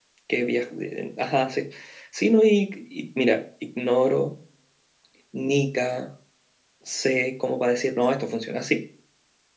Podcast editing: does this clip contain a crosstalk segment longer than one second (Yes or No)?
No